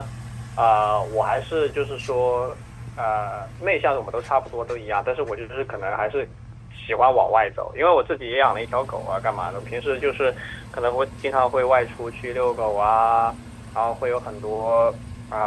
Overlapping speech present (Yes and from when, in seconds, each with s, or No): No